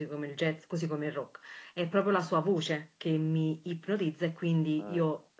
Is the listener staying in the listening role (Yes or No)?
Yes